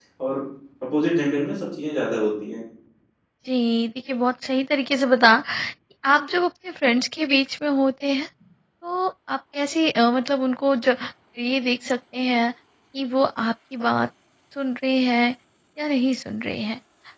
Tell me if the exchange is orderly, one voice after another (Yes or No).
Yes